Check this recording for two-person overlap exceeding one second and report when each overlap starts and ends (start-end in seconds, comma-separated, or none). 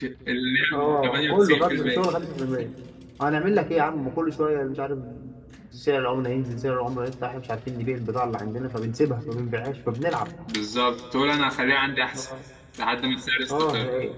0.7-2.0